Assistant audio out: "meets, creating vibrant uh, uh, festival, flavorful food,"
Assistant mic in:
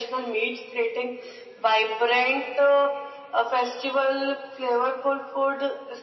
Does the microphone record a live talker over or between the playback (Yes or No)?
No